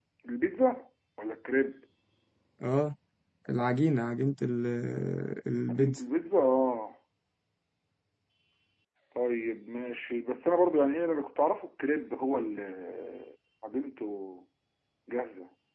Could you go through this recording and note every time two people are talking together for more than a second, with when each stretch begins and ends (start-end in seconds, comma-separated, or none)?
none